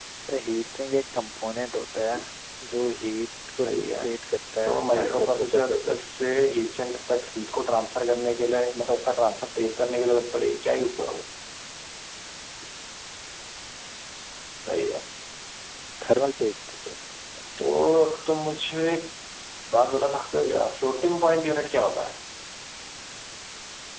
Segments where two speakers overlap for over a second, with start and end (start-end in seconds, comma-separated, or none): 4.6-6.0